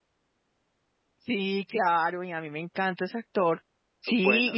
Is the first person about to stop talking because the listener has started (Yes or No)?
No